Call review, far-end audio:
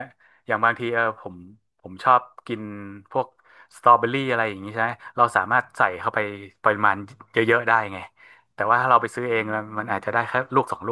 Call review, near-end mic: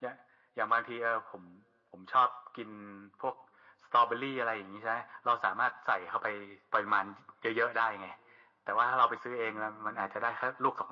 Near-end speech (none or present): none